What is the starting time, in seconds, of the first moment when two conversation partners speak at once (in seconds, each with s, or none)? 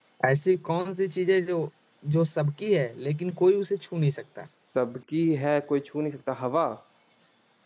none